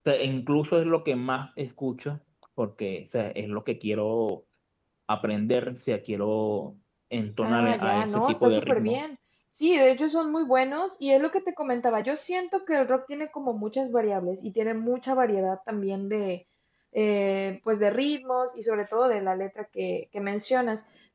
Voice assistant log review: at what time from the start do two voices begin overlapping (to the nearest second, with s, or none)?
7 s